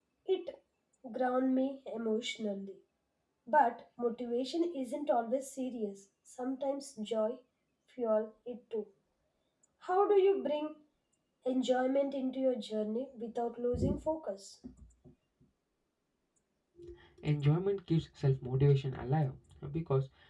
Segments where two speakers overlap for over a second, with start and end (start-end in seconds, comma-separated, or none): none